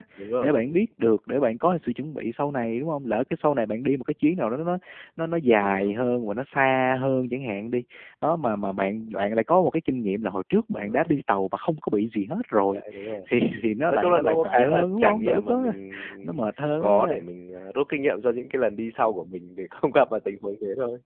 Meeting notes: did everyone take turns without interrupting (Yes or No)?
No